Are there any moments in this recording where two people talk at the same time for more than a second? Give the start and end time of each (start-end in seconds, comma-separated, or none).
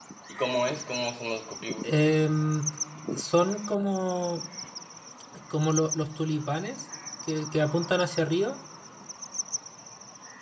none